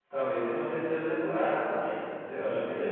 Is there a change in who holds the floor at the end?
Yes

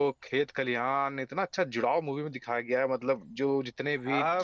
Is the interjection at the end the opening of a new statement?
Yes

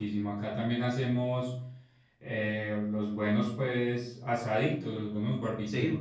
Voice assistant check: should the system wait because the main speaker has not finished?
Yes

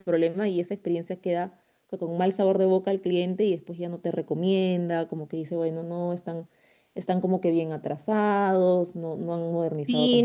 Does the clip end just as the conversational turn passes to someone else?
Yes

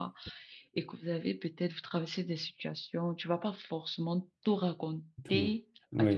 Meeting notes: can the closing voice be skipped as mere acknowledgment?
Yes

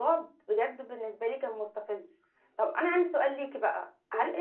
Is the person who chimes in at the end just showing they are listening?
Yes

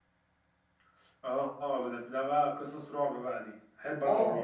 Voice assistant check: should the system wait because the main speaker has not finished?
No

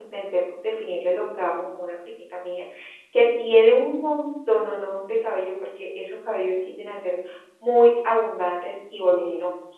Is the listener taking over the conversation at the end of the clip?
No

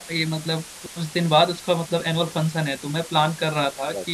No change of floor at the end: Yes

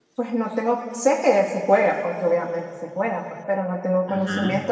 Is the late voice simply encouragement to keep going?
Yes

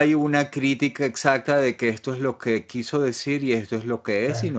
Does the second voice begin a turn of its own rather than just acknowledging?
No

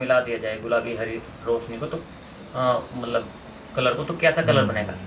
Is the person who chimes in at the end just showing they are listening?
No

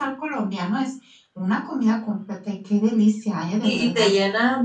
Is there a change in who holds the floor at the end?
Yes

